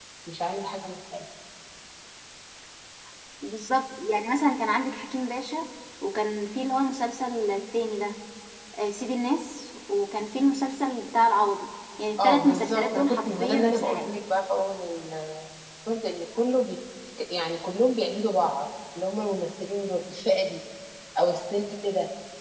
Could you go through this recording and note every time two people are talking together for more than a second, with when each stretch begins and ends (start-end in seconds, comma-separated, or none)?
12.2-14.1